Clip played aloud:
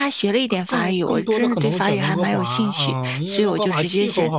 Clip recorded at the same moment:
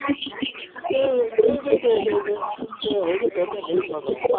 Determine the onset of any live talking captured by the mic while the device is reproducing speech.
0.9 s

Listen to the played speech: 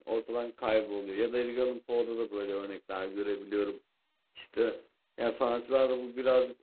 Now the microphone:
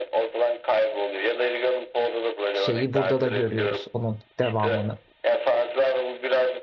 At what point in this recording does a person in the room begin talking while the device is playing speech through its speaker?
2.5 s

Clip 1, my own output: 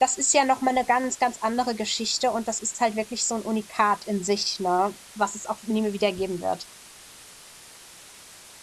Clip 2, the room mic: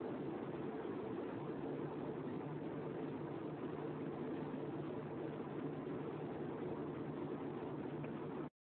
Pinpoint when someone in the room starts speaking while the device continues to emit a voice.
none

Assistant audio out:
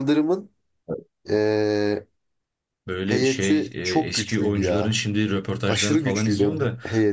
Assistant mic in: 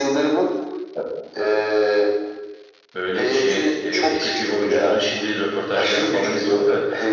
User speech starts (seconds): none

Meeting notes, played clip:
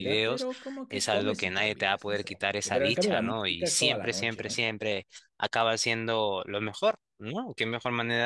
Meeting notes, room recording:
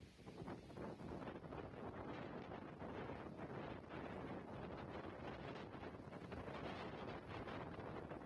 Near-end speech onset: none

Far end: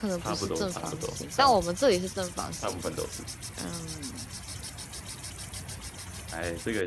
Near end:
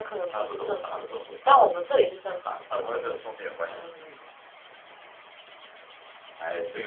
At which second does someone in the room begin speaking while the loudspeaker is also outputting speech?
2.7 s

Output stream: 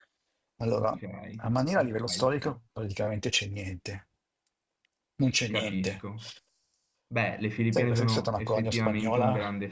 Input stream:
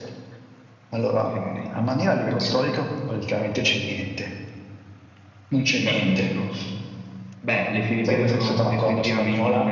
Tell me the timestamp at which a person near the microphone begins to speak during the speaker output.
none

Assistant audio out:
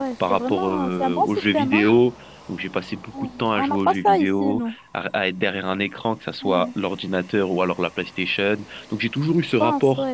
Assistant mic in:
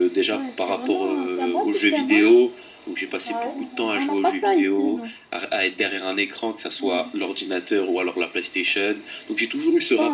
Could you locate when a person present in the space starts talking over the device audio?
3.2 s

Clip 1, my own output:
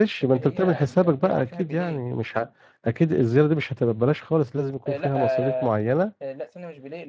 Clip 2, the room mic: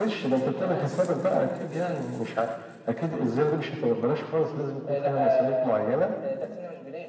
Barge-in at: none

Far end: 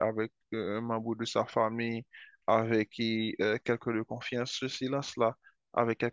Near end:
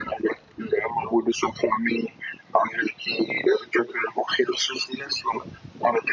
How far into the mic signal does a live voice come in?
none

